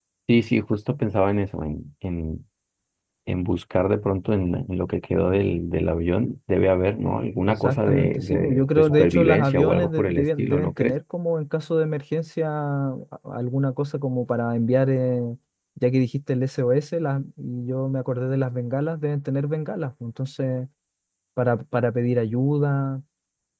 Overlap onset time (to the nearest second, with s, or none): 7 s